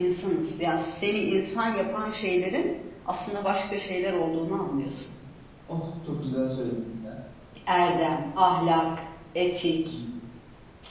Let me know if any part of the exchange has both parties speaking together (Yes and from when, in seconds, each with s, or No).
No